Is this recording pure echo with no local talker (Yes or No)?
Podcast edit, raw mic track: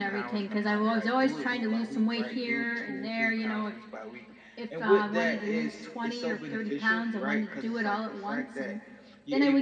Yes